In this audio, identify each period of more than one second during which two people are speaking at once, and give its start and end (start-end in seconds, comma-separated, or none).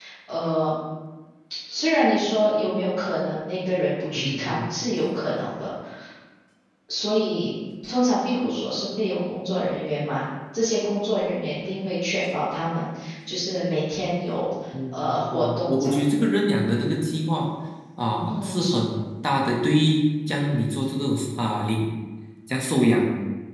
14.9-16.3